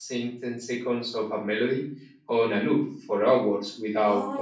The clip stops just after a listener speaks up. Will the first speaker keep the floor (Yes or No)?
No